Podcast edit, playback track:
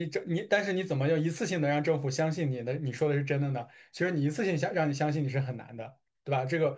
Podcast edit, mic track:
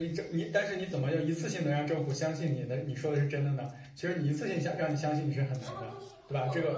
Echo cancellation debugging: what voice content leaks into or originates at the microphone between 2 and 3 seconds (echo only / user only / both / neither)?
echo only